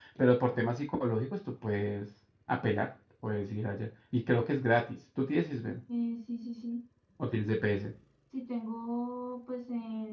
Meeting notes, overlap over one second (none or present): none